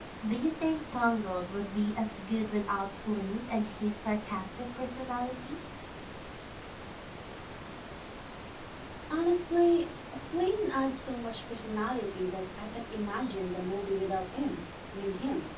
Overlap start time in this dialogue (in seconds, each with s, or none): none